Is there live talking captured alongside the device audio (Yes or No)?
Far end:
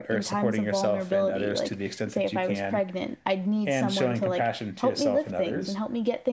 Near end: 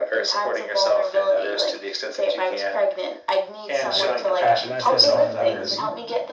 Yes